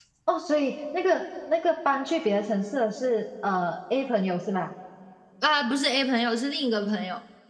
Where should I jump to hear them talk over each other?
none

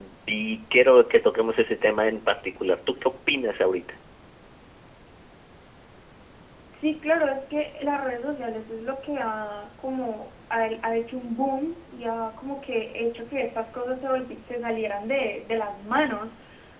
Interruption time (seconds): none

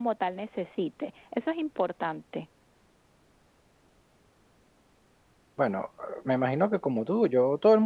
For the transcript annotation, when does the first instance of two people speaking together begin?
none

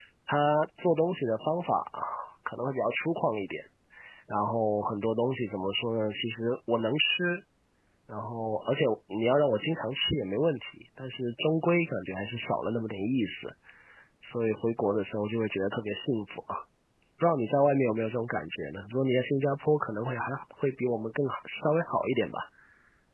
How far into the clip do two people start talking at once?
none

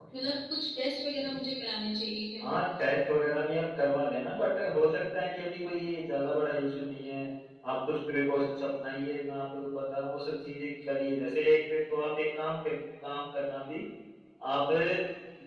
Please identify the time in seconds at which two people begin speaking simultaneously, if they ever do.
none

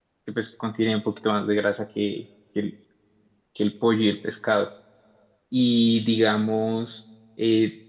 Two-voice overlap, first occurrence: none

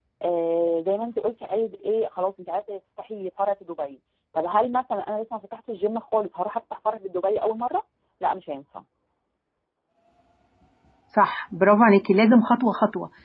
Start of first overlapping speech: none

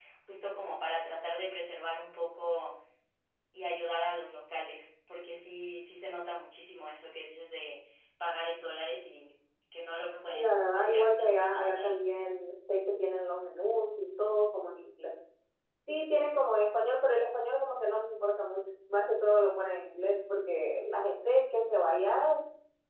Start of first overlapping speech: 10.3 s

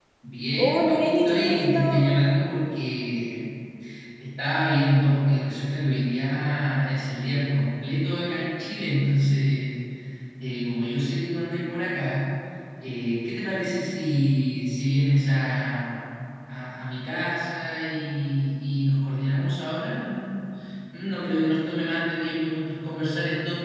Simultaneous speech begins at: 0.6 s

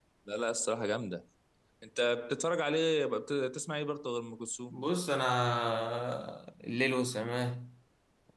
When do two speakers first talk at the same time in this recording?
none

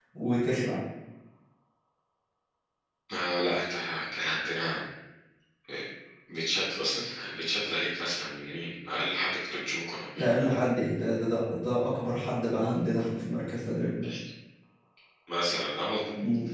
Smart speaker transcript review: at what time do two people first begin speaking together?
none

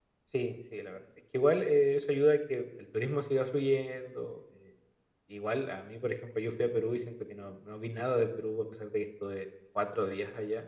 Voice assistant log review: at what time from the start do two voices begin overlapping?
none

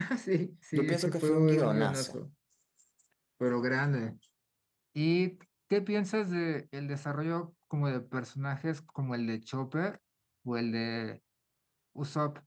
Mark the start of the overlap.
0.7 s

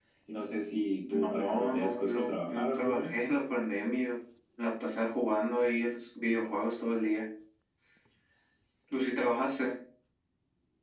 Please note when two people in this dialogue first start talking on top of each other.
1.1 s

